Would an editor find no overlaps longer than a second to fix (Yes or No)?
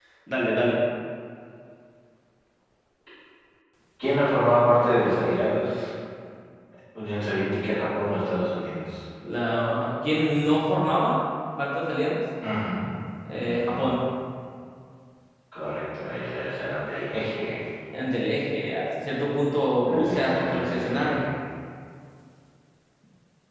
No